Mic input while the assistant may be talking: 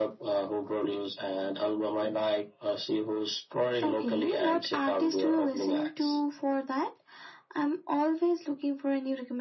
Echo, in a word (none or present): present